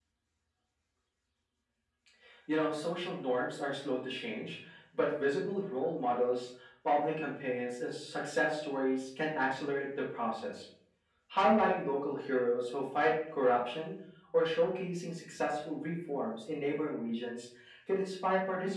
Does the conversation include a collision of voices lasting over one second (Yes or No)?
No